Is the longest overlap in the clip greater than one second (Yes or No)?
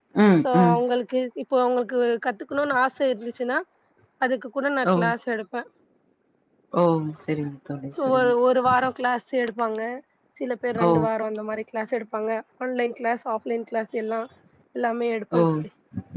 No